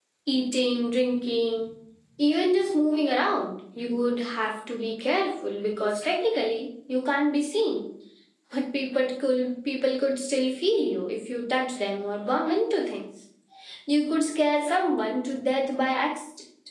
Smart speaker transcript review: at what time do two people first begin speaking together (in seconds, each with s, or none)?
none